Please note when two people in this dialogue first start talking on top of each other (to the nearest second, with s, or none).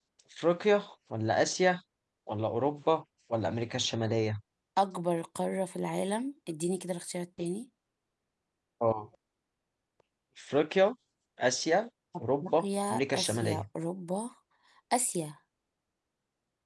12 s